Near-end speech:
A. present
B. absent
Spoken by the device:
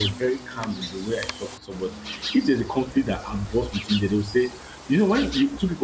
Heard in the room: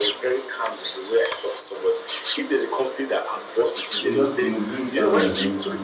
A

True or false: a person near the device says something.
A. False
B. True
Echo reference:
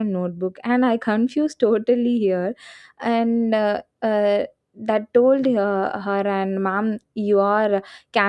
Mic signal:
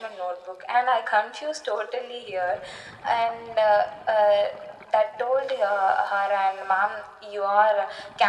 A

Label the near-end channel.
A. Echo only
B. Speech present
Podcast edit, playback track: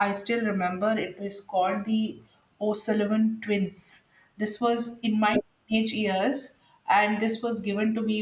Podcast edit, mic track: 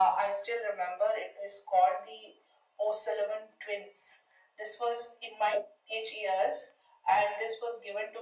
A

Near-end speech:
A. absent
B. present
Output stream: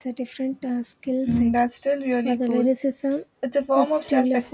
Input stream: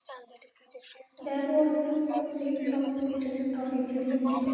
B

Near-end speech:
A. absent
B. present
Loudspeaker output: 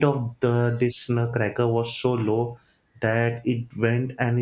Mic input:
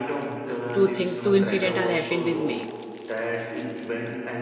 B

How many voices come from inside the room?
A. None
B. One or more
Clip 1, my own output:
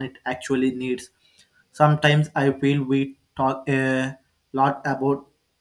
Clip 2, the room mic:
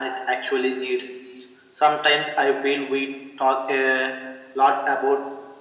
A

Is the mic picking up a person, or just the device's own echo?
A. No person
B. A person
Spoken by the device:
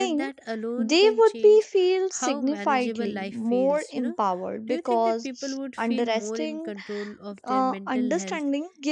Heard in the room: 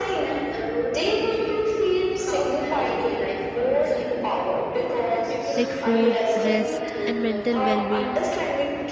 B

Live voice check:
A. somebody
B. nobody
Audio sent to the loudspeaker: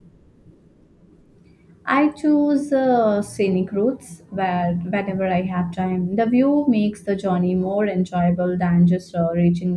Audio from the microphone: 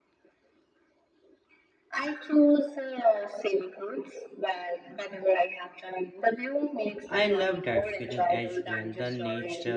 A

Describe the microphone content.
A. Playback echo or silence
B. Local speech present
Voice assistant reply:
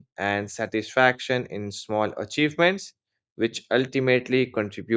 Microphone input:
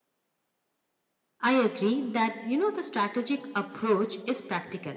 B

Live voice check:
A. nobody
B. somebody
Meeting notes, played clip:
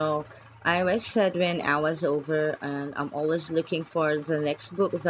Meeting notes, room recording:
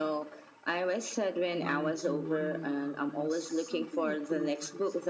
B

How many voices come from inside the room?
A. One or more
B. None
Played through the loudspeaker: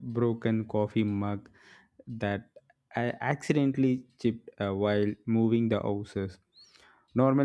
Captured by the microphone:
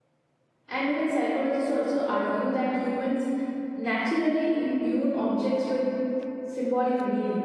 A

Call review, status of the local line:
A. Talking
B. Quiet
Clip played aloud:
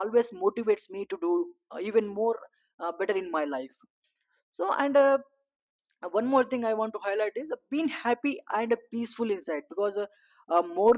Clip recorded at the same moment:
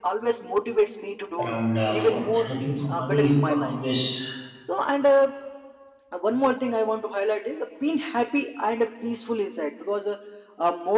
A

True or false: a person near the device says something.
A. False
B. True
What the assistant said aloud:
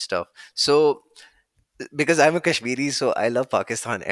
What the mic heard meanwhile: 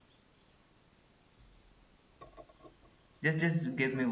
B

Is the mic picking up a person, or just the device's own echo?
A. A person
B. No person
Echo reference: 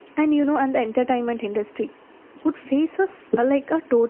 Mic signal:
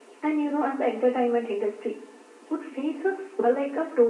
B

